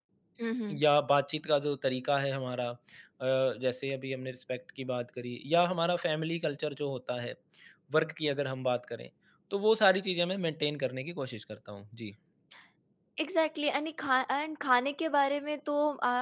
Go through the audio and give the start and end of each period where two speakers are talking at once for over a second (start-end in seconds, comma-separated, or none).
none